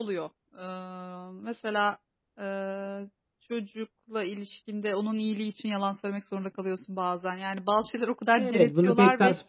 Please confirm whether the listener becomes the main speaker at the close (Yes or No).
Yes